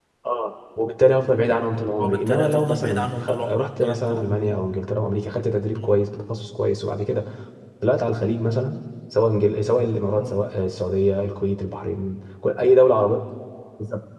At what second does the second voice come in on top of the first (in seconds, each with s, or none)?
2.0 s